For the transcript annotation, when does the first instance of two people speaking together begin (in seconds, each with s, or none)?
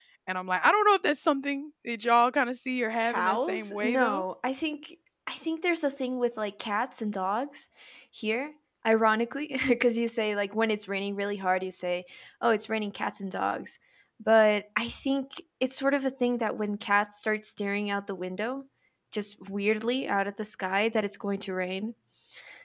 3.0 s